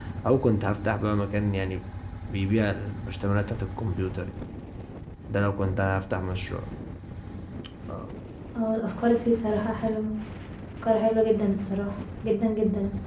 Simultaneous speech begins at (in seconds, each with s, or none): none